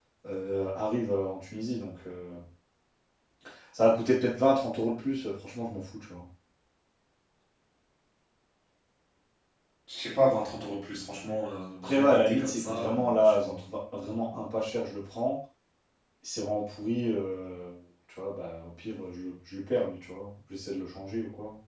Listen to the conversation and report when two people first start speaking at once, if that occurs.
12 s

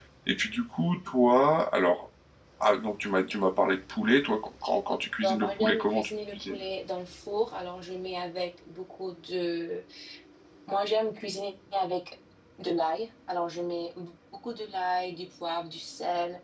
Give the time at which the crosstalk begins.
5 s

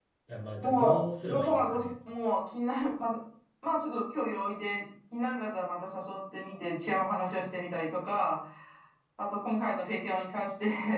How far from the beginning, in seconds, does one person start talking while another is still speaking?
1 s

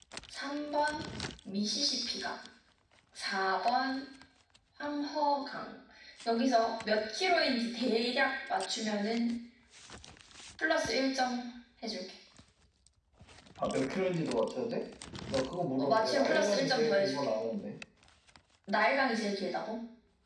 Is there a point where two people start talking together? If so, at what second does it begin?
16 s

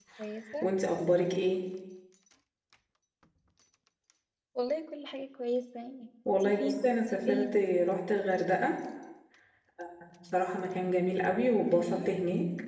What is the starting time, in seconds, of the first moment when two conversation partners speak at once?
6 s

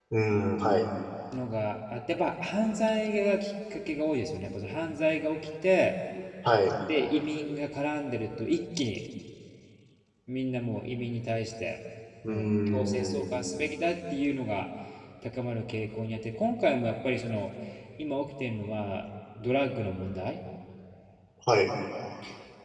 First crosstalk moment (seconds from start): 12 s

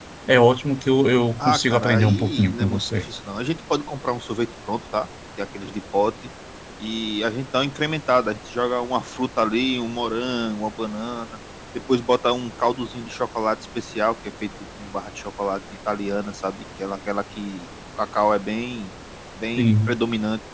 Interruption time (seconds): 1 s

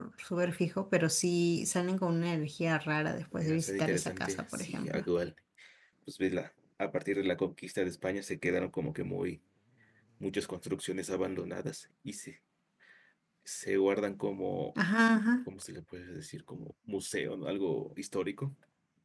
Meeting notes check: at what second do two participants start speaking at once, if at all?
3 s

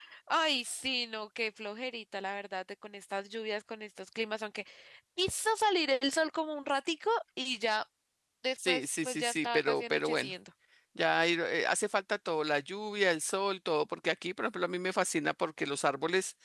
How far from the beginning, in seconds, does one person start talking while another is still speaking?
9 s

